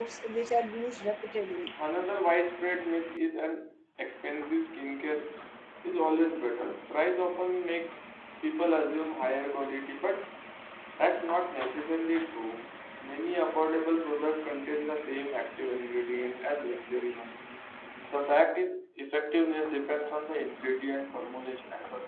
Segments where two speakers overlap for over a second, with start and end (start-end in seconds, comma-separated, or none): none